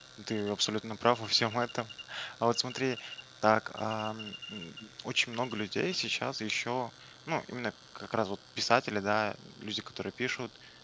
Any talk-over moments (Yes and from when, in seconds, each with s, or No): No